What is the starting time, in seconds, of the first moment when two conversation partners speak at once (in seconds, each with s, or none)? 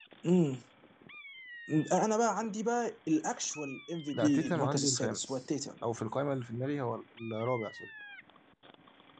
4.1 s